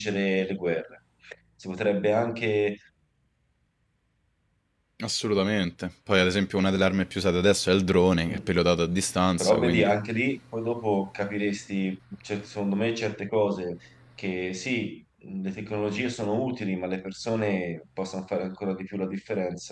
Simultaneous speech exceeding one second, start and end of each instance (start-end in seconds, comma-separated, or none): none